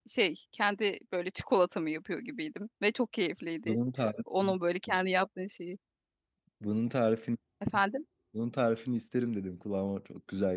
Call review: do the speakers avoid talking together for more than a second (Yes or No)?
Yes